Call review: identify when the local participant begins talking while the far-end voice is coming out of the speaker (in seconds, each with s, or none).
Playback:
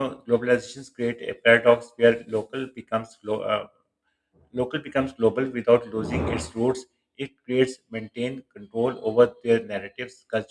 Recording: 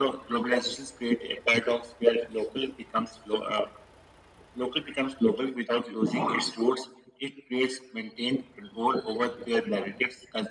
none